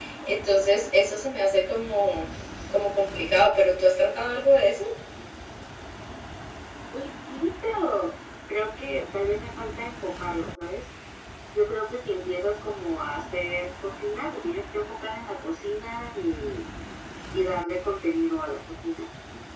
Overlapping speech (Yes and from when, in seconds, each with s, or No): No